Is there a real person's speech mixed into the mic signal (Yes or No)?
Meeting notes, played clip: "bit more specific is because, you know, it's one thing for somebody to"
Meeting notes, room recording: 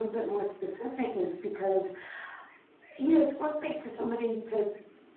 No